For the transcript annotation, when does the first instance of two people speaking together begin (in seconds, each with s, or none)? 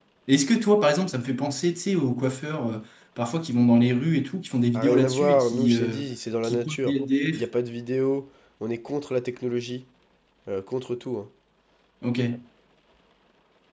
4.7 s